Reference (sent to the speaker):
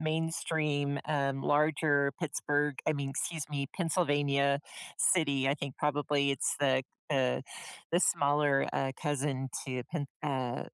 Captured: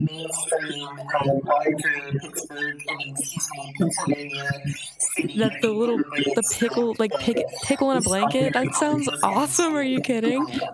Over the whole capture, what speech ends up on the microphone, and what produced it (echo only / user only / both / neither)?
both